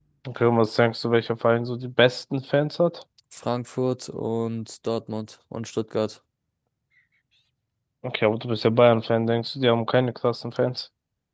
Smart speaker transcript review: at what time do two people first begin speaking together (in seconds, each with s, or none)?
none